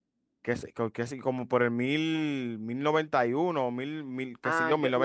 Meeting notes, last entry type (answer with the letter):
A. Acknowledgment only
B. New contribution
B